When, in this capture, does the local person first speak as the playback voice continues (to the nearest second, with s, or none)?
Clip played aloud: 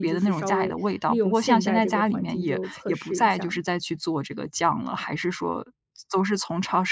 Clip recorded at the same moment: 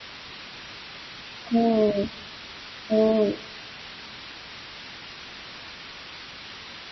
2 s